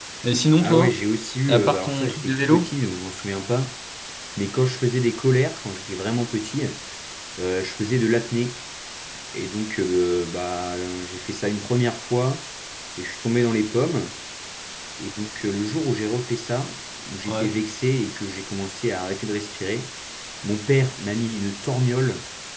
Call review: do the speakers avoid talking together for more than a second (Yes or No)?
No